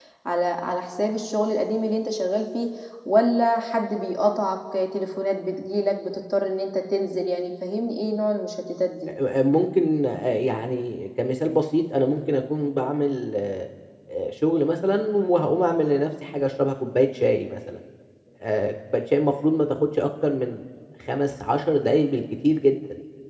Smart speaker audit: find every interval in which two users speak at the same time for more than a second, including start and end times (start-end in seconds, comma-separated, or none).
none